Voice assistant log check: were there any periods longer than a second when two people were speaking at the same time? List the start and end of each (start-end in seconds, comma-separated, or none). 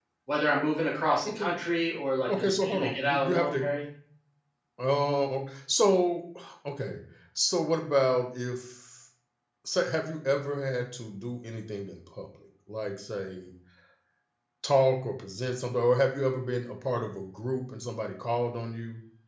2.3-3.6